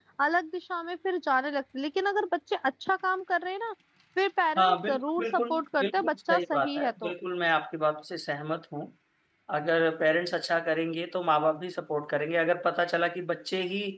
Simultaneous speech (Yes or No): Yes